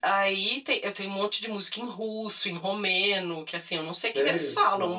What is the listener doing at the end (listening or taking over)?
listening